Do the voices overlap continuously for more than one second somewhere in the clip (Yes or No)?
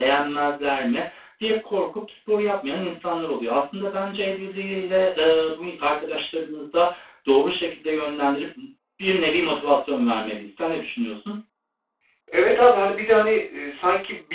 No